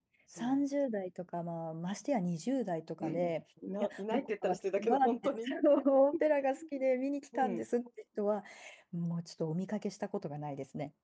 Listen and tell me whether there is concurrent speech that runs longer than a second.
Yes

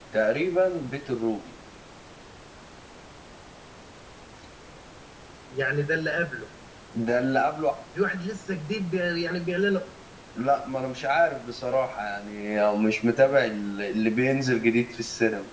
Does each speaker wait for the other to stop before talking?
Yes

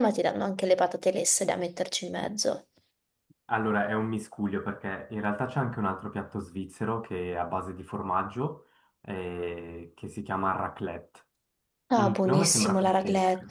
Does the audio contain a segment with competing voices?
Yes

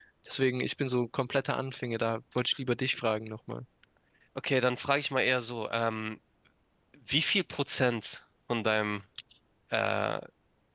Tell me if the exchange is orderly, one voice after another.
Yes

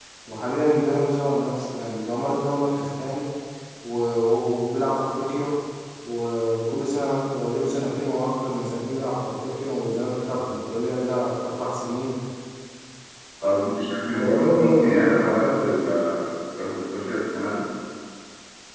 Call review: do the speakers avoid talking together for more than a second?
No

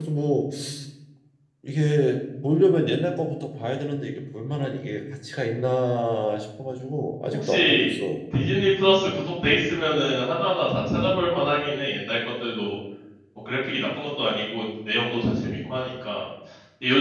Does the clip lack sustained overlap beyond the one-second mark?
Yes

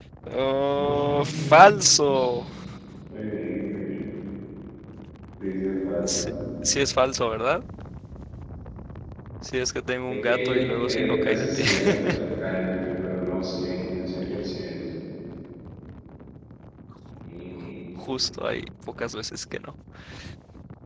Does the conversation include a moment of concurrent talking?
Yes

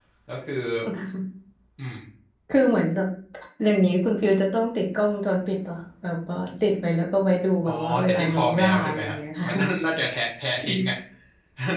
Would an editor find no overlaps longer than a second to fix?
No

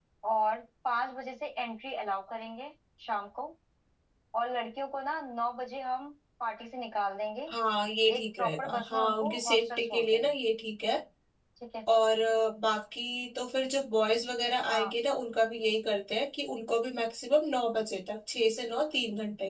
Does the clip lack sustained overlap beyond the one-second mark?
No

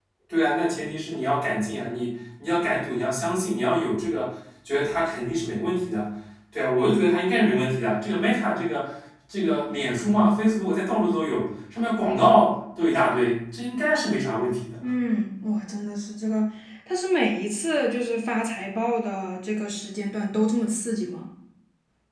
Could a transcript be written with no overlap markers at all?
Yes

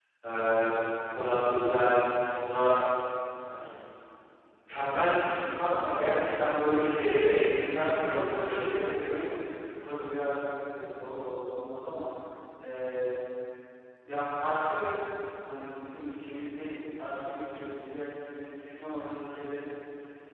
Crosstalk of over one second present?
Yes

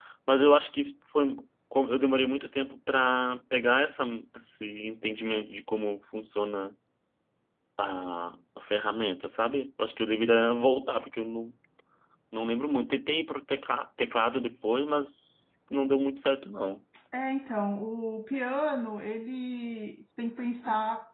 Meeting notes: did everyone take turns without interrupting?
Yes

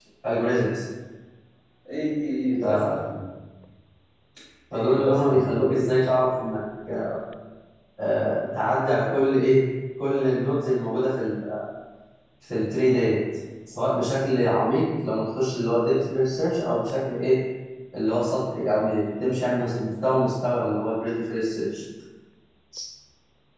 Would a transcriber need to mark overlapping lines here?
Yes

